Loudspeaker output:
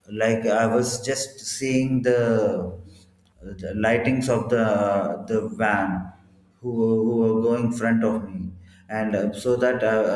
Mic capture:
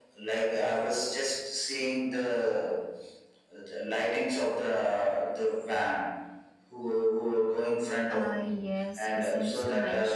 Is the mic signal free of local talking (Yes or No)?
No